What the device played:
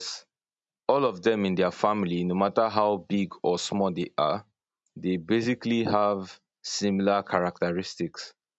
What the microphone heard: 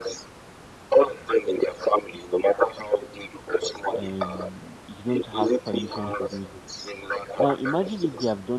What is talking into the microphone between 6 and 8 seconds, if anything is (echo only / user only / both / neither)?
both